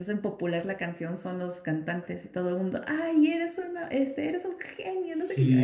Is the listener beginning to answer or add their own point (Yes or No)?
Yes